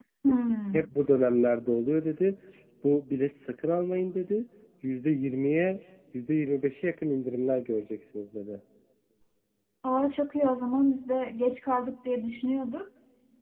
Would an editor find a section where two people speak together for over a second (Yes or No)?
No